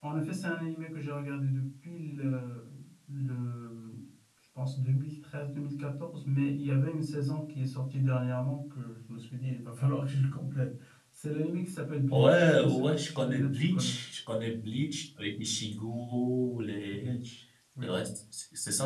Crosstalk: present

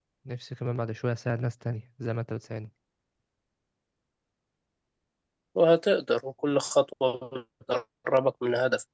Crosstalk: none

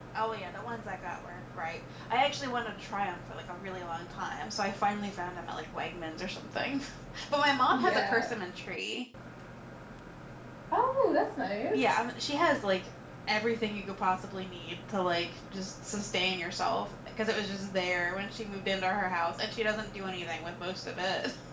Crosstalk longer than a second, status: none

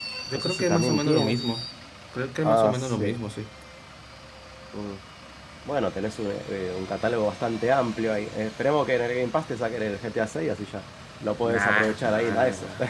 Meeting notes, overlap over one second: present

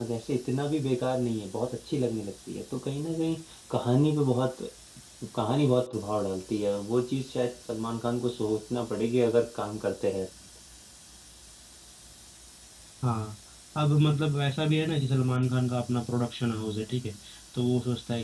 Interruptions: none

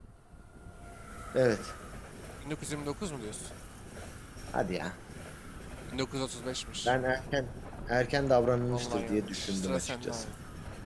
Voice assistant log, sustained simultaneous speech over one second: present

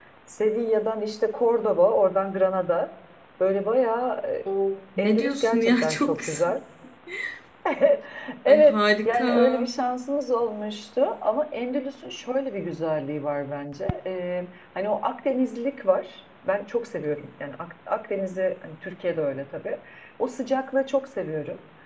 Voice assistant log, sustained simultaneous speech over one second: present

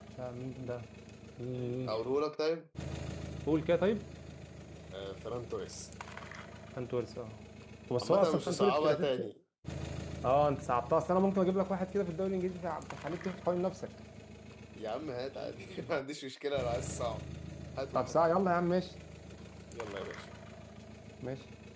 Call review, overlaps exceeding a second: present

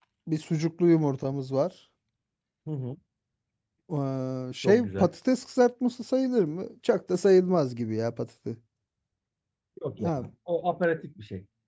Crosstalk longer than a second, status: none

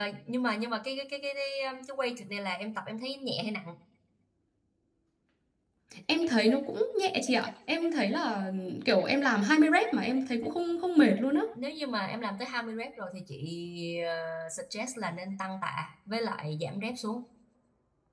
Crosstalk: none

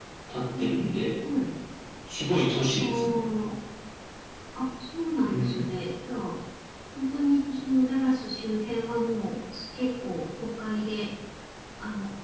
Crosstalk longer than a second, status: none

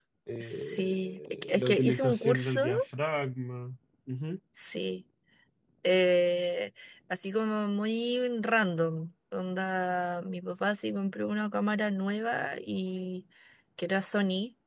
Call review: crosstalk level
present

